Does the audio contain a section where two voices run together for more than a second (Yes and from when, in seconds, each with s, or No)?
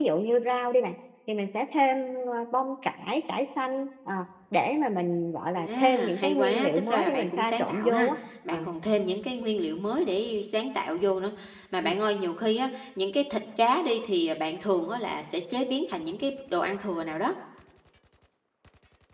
Yes, from 5.6 s